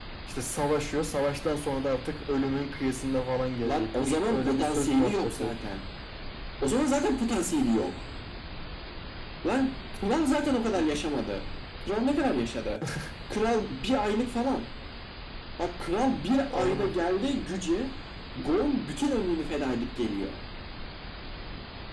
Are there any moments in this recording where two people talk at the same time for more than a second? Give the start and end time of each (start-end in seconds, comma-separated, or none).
3.6-5.5